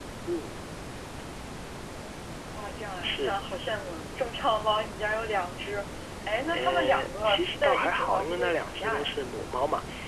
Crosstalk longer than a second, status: present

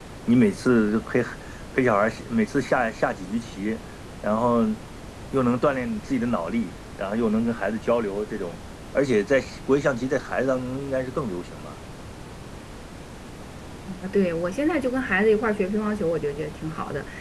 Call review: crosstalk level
none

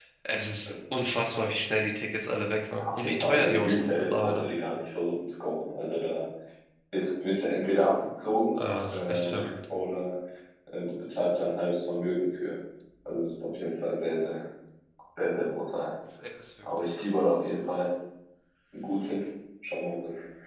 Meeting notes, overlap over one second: present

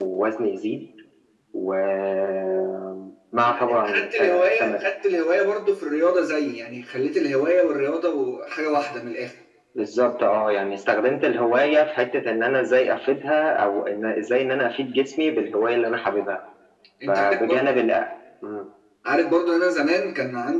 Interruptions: present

